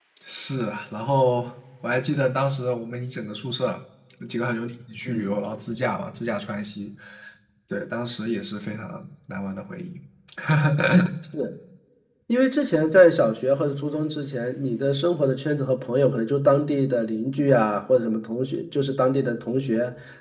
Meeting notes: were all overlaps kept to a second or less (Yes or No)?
Yes